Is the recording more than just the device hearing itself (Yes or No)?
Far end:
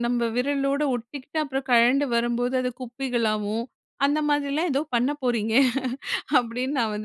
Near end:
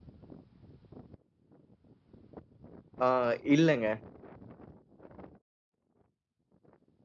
Yes